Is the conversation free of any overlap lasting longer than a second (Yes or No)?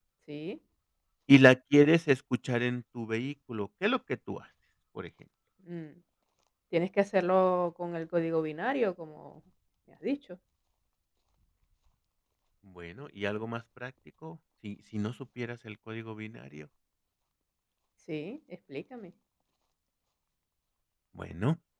Yes